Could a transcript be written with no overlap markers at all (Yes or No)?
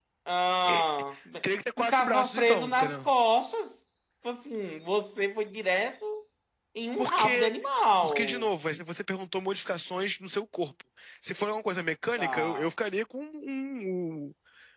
No